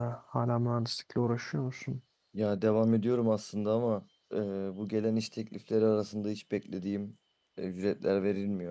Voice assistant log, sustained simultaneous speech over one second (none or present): none